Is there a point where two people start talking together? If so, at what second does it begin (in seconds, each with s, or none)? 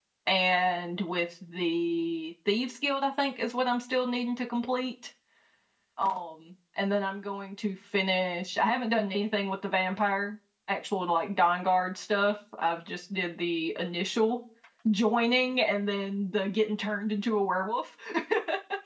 none